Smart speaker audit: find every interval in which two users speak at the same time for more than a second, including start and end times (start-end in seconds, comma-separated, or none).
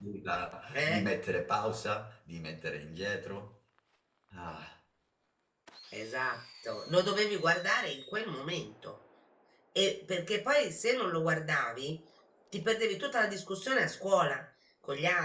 none